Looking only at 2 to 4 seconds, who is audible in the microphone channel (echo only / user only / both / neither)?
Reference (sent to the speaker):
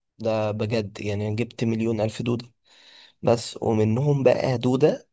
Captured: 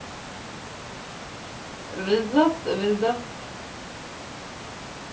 user only